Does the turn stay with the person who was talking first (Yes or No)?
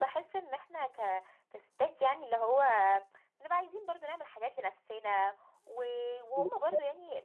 Yes